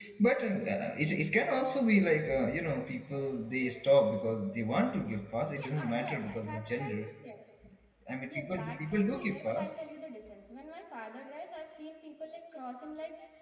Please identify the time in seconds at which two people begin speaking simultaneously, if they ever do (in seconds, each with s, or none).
5.8 s